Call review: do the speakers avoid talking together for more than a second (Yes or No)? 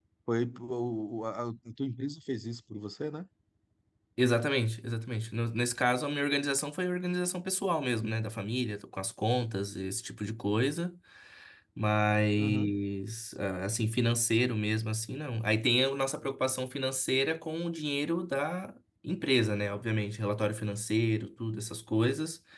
Yes